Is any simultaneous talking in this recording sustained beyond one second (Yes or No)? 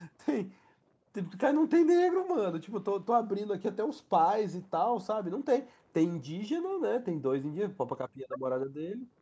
No